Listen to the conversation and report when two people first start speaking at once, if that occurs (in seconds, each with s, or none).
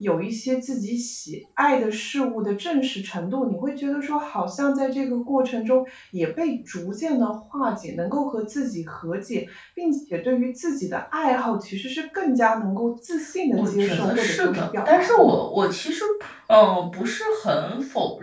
13.6 s